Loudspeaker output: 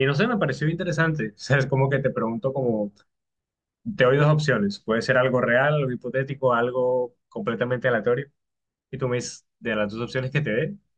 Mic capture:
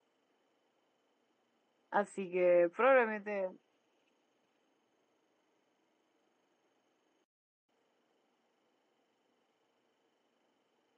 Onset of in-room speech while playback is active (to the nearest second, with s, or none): 2 s